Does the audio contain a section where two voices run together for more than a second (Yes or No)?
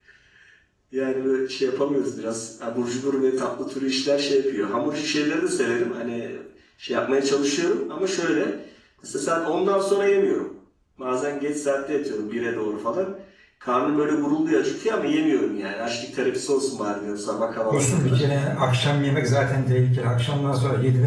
No